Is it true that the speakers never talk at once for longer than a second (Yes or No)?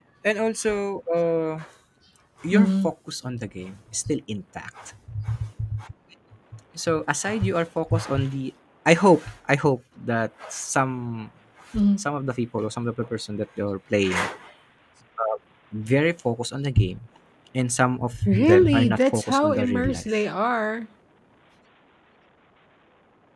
No